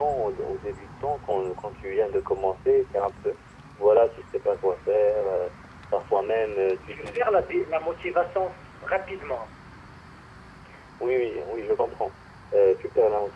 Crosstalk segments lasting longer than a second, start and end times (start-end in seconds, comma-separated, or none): none